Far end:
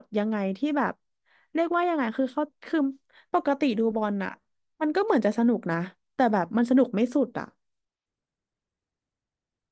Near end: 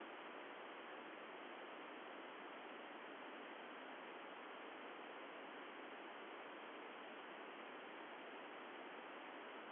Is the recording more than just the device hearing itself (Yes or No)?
No